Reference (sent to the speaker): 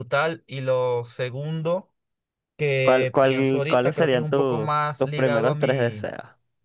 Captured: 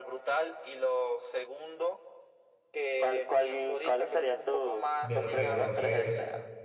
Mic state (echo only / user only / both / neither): both